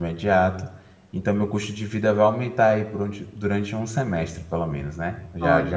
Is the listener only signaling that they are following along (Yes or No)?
Yes